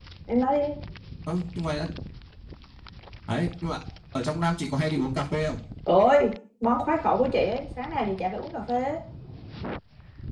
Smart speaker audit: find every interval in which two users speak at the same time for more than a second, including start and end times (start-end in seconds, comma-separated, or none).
none